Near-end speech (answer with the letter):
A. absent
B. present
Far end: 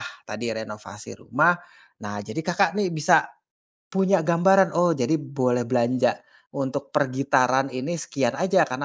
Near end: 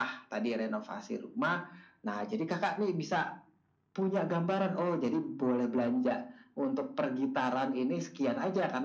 A